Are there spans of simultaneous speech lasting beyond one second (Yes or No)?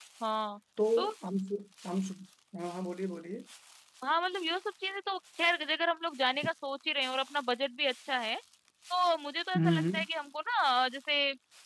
No